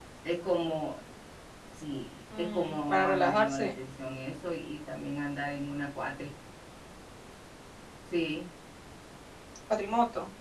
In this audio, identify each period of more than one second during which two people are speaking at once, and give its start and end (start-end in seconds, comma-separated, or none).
2.4-3.8